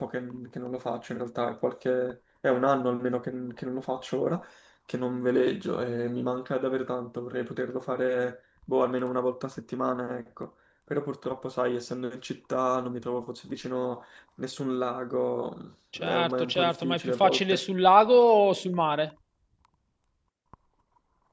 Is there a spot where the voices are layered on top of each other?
Yes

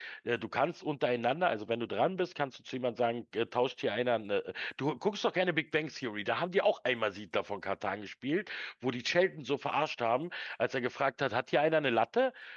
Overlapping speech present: No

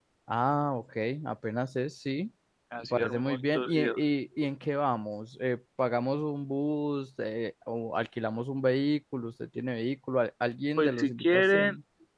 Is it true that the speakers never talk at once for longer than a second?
No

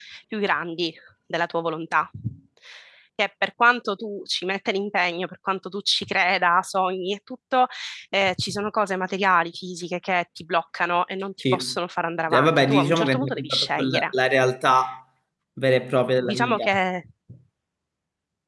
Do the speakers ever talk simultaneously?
Yes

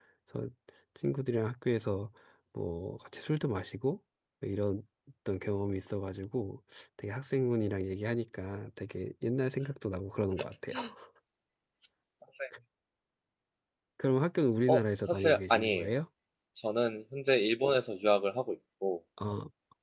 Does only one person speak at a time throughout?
No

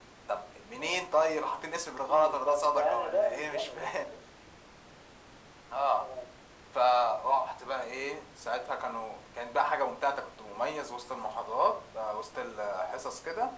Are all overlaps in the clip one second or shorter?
No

